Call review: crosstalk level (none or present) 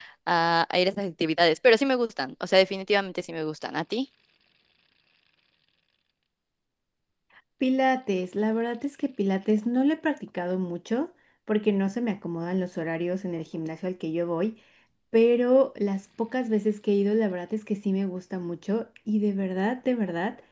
none